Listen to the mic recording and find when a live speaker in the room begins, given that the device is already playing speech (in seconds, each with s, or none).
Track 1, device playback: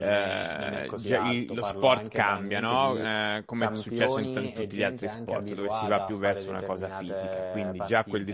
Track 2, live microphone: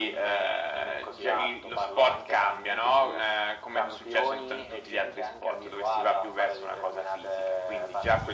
none